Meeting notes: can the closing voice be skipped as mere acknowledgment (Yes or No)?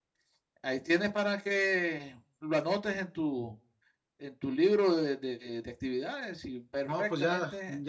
No